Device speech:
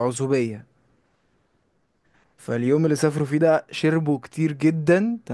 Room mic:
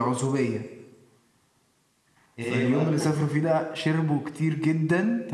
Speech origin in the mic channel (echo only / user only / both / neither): both